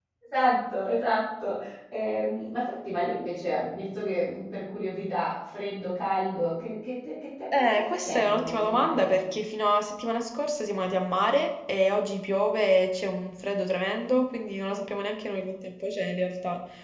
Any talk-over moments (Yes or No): Yes